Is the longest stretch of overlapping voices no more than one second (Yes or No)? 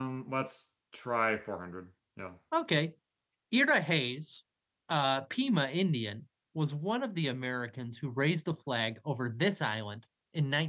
Yes